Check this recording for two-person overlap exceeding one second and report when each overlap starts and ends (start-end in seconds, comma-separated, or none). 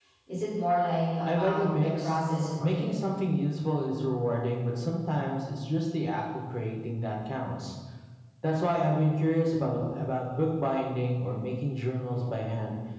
1.2-3.0